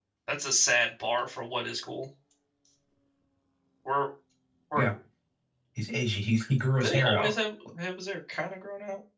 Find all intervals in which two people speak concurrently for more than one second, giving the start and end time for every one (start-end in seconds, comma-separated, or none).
none